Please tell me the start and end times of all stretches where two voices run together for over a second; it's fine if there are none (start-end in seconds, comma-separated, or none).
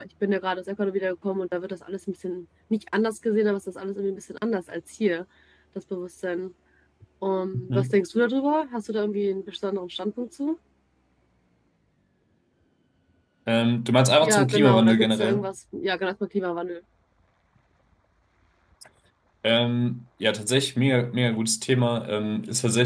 14.2-15.5